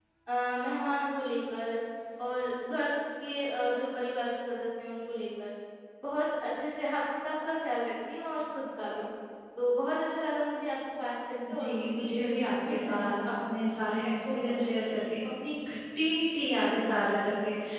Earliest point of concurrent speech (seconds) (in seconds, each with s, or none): 11.4 s